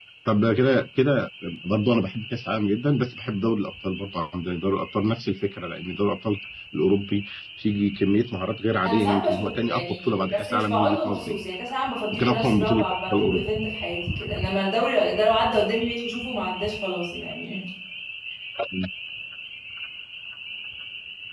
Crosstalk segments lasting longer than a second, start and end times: 8.8-11.4, 12.1-13.5

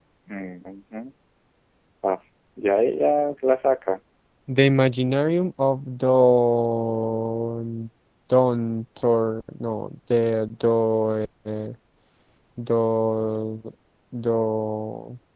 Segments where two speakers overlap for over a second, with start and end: none

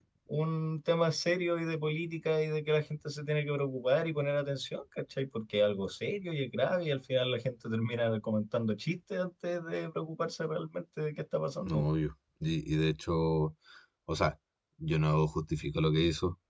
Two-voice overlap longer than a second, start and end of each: none

